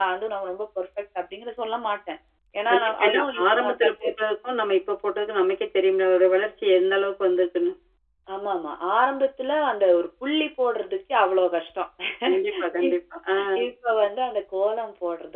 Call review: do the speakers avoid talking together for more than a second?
No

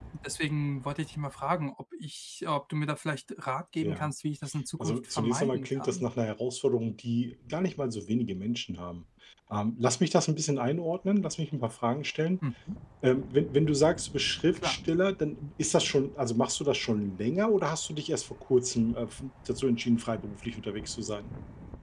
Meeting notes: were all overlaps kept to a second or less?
No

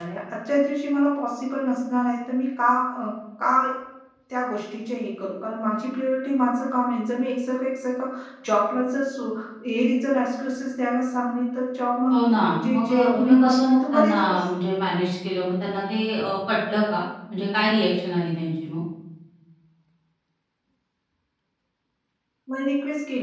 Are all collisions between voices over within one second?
No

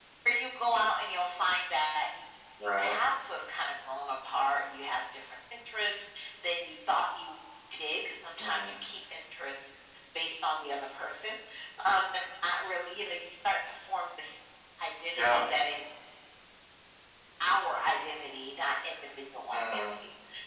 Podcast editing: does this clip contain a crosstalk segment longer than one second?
No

